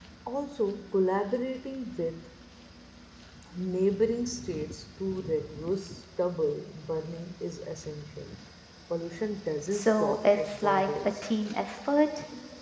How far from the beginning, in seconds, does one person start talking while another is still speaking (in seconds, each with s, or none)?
9.7 s